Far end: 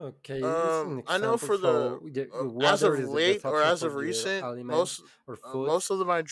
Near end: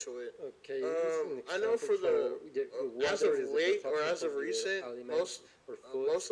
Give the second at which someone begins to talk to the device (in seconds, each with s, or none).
none